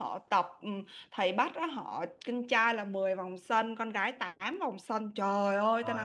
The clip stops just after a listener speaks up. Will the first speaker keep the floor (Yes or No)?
Yes